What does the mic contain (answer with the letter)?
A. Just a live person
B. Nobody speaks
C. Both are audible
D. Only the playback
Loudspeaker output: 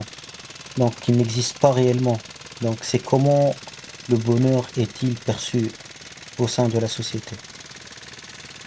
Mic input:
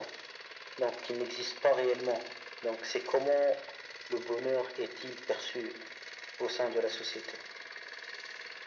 D